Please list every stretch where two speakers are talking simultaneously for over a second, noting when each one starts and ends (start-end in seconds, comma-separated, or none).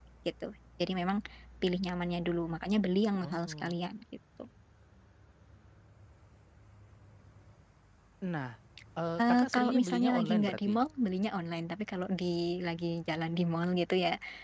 9.2-10.7